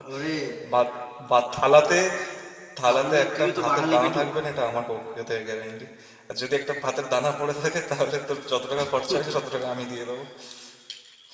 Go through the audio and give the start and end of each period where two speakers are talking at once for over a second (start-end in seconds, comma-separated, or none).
2.9-4.2